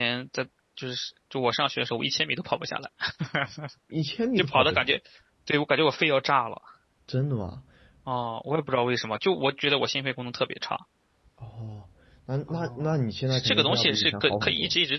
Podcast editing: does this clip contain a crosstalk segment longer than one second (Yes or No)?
Yes